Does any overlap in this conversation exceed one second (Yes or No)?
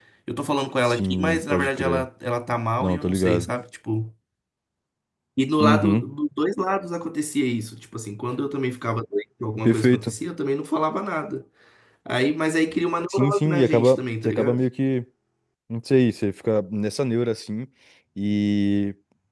Yes